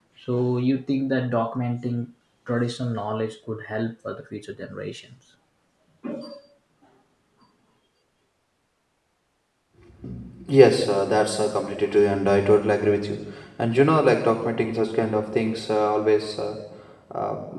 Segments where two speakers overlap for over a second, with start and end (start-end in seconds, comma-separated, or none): none